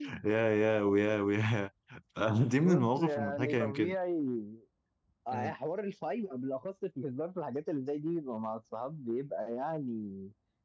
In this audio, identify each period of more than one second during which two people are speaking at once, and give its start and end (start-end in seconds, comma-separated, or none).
2.5-4.0